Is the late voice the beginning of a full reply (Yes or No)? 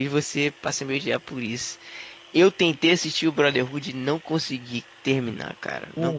No